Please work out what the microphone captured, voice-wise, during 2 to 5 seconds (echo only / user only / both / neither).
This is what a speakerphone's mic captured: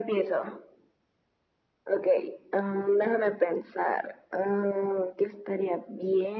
echo only